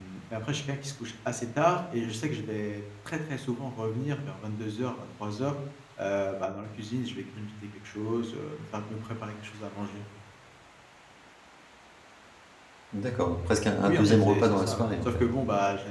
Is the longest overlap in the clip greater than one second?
Yes, from 13.8 s

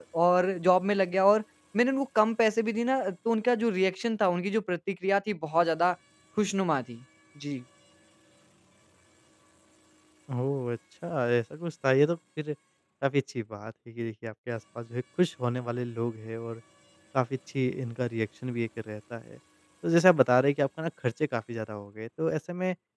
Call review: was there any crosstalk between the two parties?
No

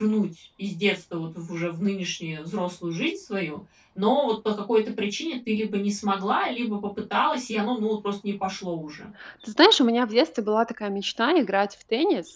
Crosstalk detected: No

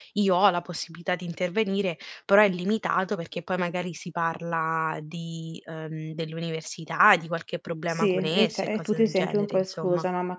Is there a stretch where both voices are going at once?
Yes, from 7.9 s

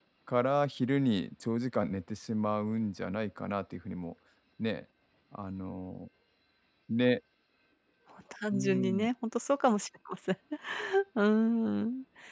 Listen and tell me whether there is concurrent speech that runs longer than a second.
No

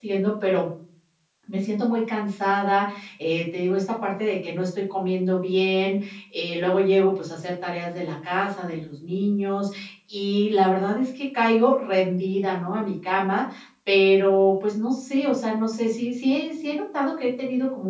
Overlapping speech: No

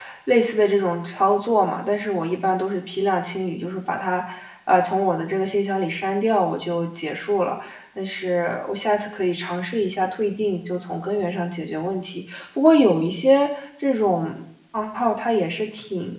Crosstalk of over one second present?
No

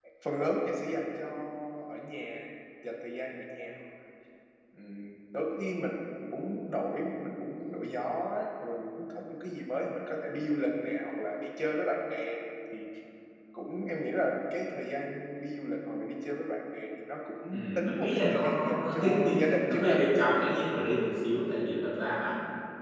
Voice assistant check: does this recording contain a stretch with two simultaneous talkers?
Yes, from 17.5 s

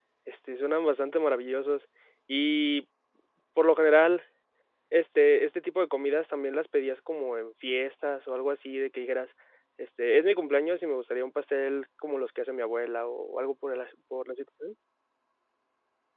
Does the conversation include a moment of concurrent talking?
No

